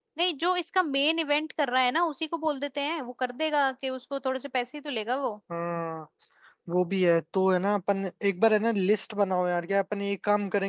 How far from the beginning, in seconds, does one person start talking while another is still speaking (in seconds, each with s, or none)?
none